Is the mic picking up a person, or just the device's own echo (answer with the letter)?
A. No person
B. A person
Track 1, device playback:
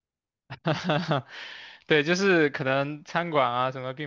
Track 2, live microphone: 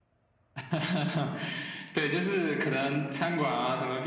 A